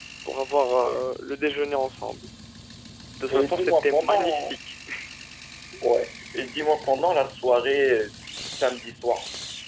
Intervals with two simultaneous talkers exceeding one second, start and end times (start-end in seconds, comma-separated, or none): 3.3-4.5